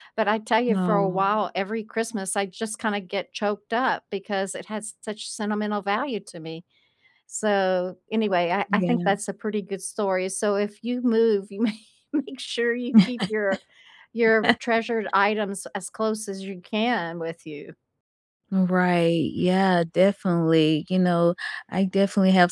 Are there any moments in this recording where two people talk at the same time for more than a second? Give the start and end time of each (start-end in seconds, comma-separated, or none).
none